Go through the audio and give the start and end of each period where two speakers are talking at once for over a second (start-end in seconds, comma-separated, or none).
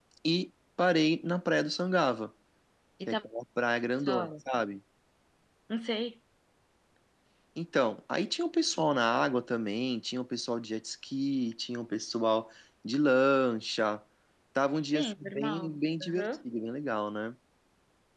14.9-16.3